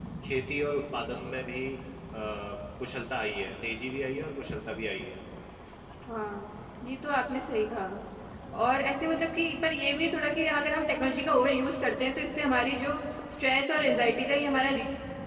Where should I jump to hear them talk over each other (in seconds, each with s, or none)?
none